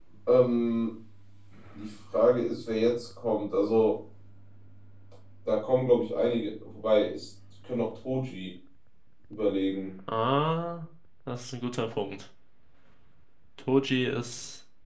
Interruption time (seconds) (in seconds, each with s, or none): none